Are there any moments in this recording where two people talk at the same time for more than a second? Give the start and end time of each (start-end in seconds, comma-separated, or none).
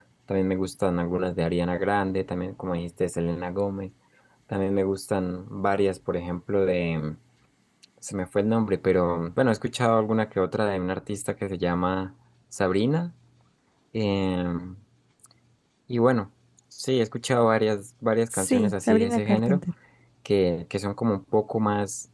18.3-19.6